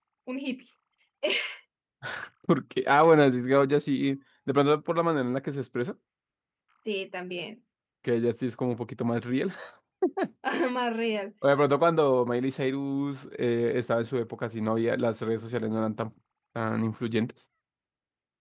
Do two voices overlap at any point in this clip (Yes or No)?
No